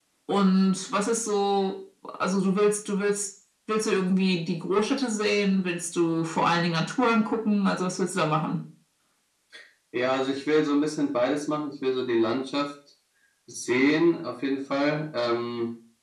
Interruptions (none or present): none